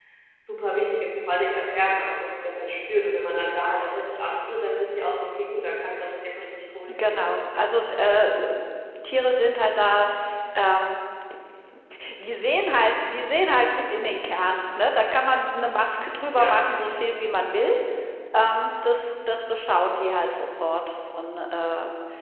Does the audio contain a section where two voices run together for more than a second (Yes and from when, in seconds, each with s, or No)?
No